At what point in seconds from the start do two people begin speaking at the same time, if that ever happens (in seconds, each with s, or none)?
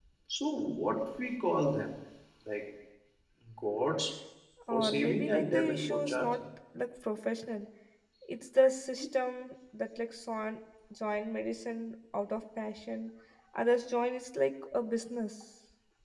4.7 s